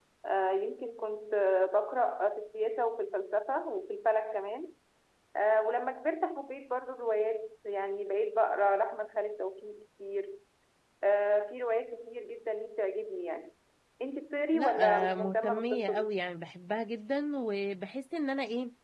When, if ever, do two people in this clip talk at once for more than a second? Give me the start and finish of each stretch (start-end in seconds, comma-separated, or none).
14.5-16.2